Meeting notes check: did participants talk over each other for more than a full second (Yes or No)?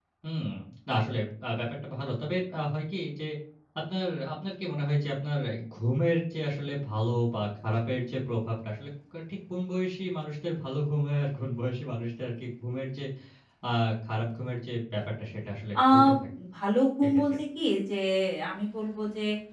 No